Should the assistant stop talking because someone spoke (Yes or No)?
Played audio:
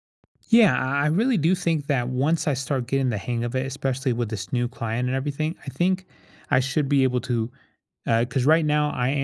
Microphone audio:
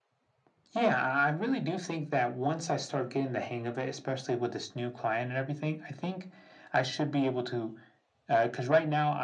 No